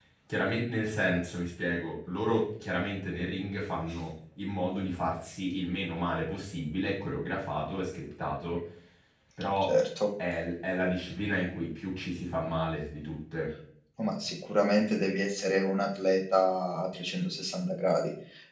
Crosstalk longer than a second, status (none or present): none